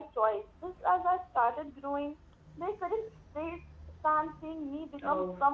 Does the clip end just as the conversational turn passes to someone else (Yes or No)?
Yes